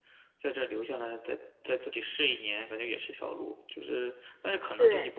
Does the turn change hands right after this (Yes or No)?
No